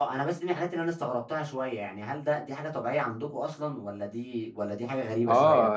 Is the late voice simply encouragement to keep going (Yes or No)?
No